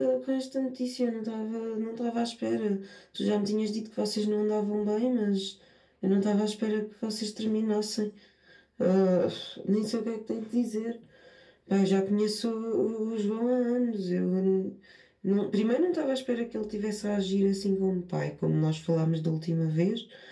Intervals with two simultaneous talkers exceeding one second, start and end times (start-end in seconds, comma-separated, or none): none